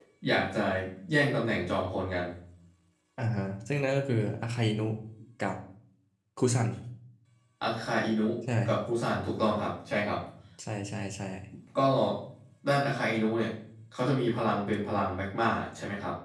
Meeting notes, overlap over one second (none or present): none